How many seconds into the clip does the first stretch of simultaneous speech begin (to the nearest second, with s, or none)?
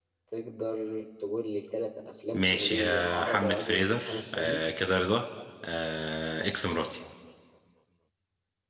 2 s